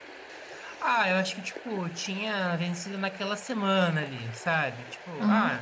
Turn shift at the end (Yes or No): No